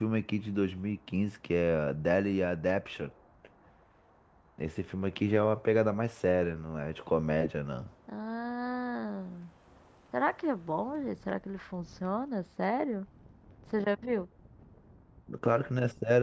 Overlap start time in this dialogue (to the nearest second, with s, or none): none